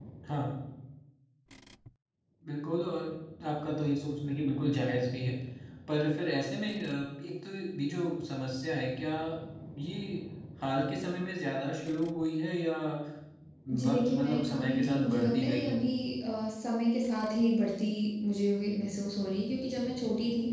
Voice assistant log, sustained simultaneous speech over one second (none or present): present